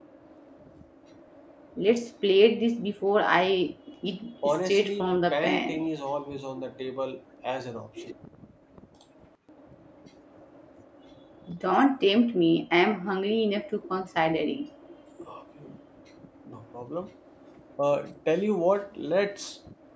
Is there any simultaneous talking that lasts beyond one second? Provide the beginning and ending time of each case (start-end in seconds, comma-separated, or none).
4.5-5.8